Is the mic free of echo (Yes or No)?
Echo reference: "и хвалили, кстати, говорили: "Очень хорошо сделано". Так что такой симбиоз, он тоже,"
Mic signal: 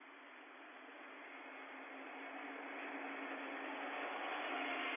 Yes